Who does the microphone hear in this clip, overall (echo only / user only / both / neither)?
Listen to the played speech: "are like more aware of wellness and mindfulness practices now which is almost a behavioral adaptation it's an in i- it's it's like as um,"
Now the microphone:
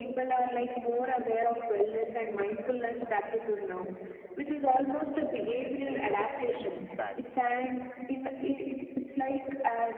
both